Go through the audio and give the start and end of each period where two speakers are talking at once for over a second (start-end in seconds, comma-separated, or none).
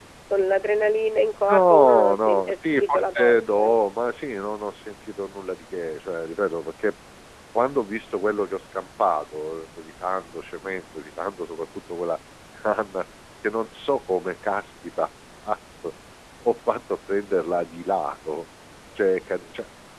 1.5-3.8